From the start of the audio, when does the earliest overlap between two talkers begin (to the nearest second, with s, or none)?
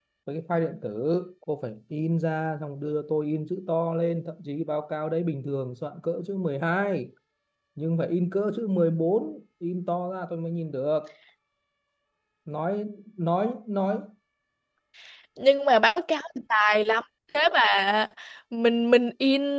none